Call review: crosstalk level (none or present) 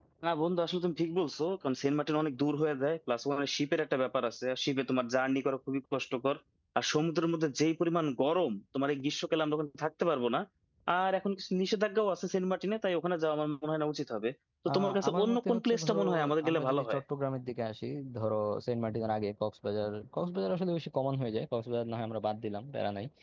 present